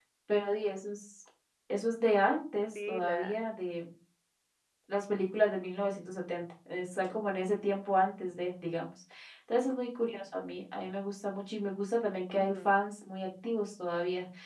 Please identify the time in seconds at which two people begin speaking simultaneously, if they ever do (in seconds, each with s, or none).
2.1 s